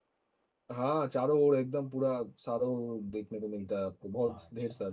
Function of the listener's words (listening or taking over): taking over